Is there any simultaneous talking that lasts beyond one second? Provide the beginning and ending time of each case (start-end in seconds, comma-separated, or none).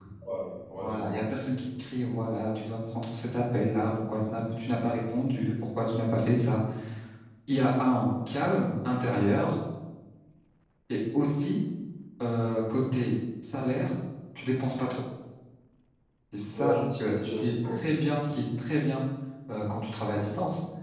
16.5-17.8